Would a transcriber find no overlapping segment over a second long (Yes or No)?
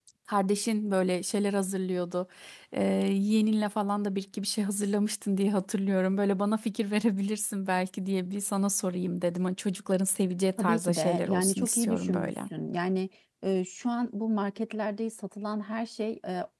No